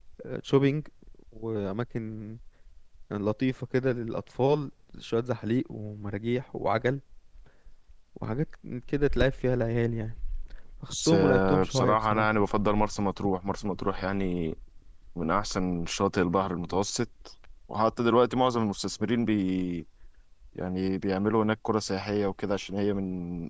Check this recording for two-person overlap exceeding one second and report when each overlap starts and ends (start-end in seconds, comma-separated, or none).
10.9-12.3